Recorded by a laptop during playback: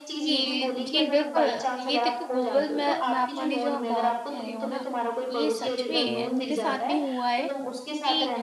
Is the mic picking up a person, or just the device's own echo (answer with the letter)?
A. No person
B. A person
B